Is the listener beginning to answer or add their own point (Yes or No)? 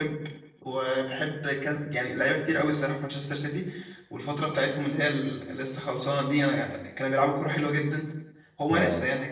No